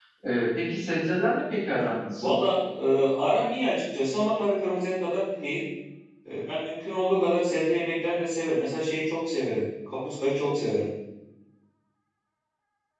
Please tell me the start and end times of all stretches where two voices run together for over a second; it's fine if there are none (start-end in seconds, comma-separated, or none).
none